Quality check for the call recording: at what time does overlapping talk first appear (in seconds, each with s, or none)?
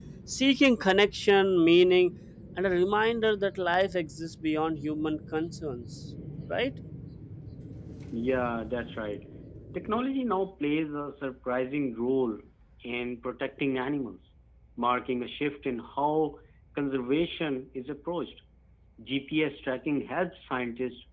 none